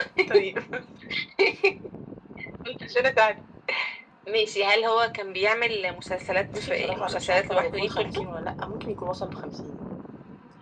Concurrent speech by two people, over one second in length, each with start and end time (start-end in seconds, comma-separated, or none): 6.5-8.2